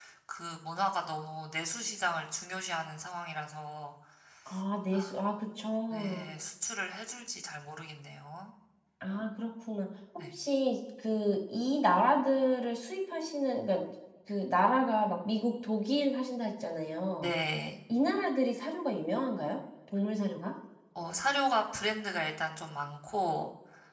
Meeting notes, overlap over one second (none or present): none